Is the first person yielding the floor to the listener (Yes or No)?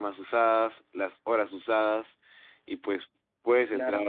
No